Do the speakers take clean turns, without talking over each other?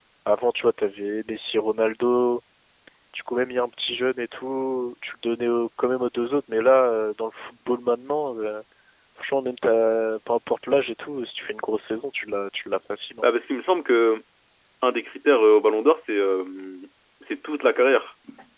Yes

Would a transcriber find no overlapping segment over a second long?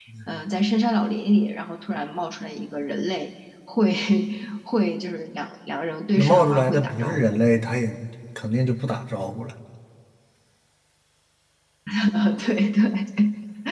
No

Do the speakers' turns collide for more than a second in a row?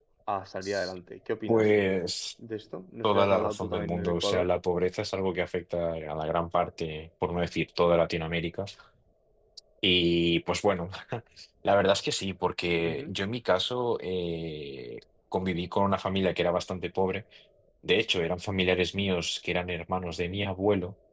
Yes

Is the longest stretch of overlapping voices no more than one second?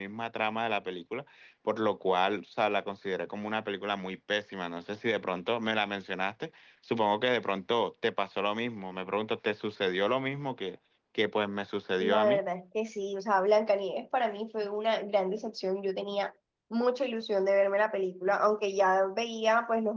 Yes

